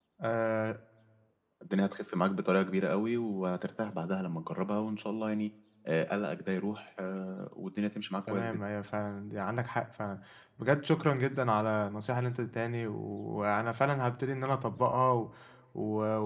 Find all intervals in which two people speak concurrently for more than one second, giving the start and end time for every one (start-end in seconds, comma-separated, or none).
none